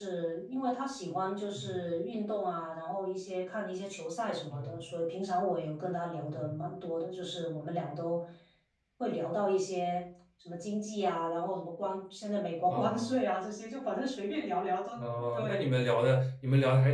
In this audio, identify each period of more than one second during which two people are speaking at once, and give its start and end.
none

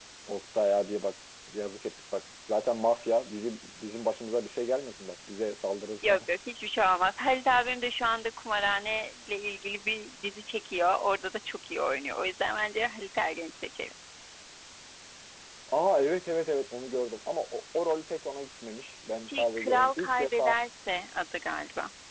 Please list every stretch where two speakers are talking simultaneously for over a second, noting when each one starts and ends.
19.3-20.5

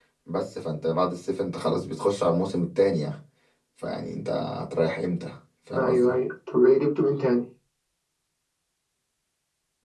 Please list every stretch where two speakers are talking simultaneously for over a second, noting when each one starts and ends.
none

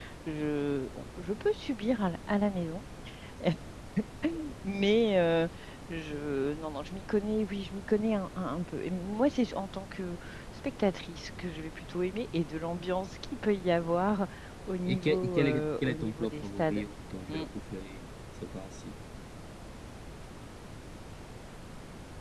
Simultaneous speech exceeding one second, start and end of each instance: 14.9-16.8

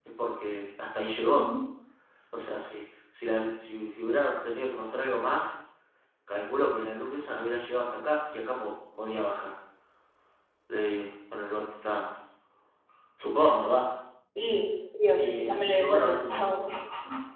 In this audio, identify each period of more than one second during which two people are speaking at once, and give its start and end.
15.1-16.5

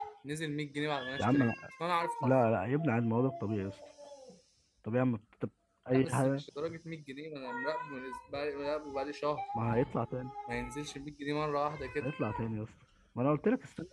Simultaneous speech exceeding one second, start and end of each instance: none

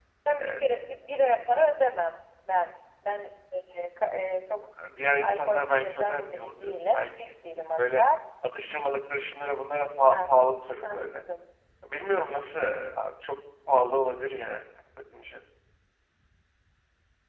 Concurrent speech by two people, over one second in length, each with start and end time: 5.2-7.3

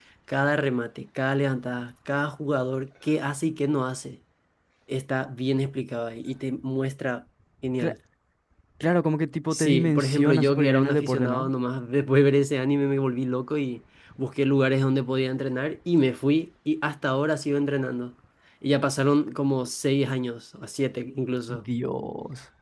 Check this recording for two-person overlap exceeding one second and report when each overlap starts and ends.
9.5-11.5

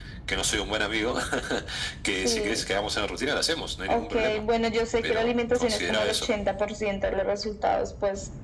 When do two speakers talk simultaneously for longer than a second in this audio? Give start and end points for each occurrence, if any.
5.0-6.3

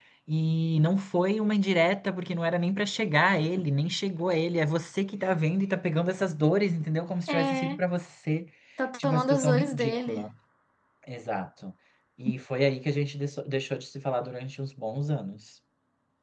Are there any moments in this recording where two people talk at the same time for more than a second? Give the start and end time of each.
9.0-10.3

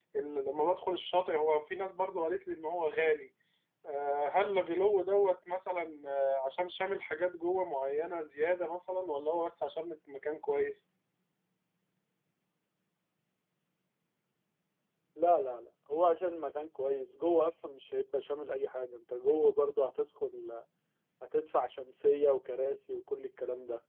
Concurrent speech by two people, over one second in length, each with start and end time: none

